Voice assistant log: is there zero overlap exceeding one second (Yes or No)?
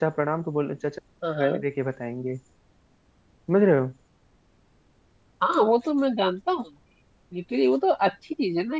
Yes